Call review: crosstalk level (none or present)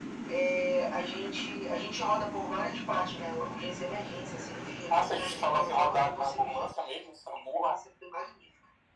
present